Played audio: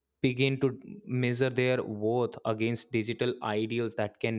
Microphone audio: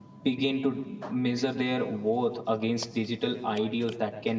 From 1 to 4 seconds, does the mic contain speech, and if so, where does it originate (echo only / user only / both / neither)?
echo only